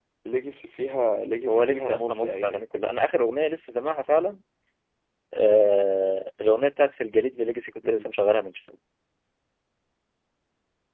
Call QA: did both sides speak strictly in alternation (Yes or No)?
No